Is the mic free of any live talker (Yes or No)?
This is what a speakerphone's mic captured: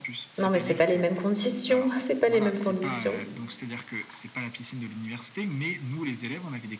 No